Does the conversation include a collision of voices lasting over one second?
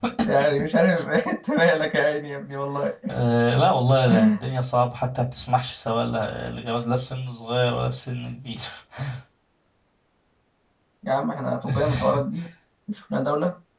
No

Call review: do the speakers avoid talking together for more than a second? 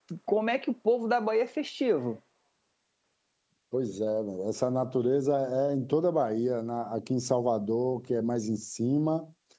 Yes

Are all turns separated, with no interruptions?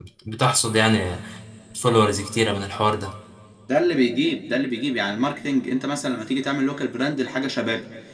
Yes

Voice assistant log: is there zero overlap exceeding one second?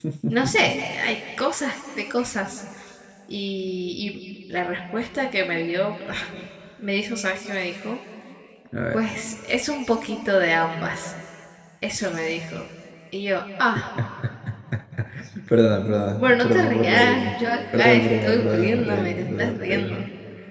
No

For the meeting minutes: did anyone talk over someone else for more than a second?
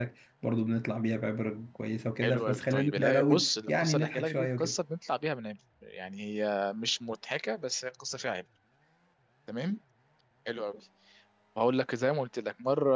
Yes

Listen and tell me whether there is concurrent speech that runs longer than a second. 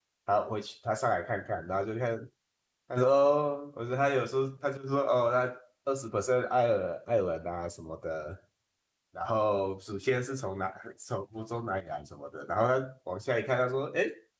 No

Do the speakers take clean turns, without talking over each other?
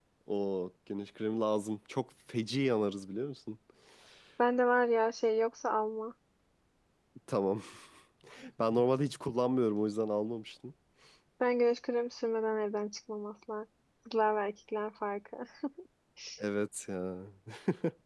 Yes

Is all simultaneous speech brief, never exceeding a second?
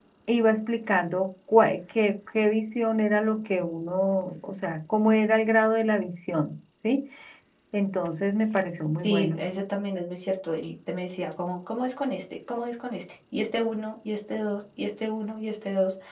Yes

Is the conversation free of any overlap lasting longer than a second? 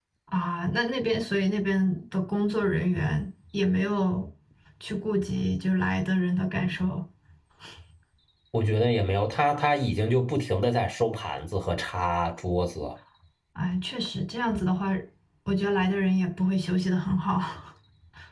Yes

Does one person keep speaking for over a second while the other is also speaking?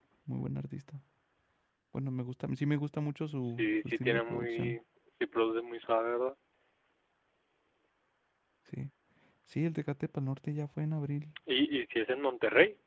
Yes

